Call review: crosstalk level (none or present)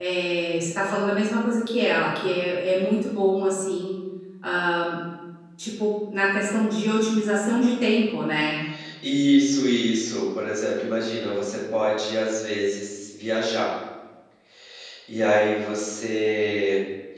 none